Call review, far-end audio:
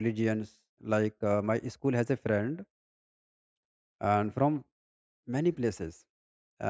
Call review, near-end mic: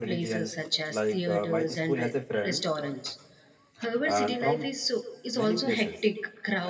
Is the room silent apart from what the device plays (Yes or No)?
No